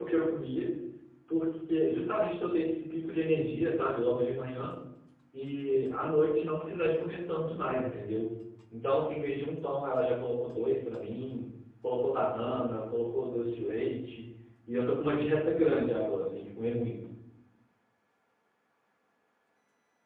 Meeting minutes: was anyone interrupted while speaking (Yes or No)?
No